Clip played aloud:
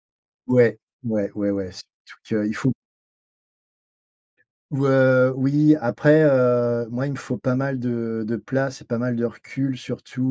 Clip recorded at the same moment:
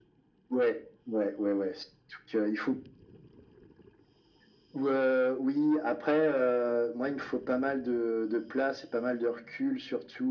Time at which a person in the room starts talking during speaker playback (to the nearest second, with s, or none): none